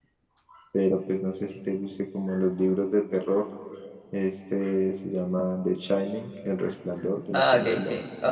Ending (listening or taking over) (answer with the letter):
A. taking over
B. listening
A